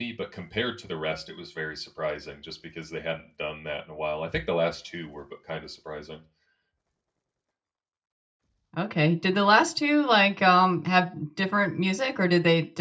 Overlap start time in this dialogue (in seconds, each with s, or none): none